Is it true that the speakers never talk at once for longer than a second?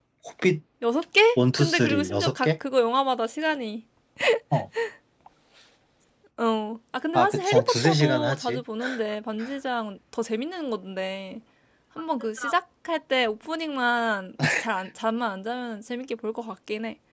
No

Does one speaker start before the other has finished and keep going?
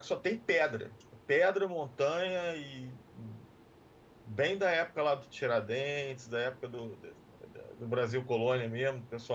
No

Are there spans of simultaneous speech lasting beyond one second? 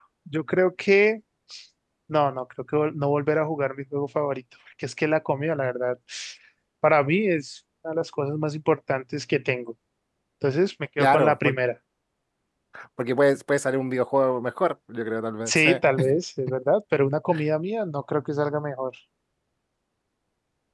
No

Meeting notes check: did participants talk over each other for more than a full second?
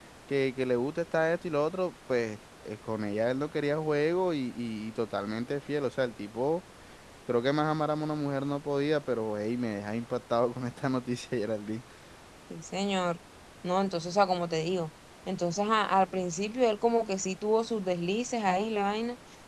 No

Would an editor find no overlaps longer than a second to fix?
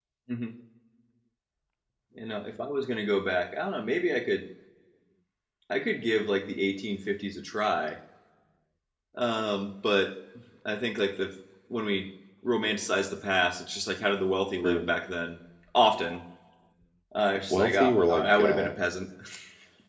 No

